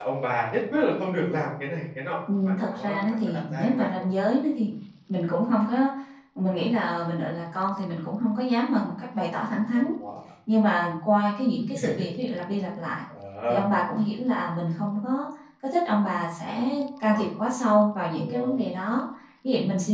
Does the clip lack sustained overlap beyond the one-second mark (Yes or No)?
No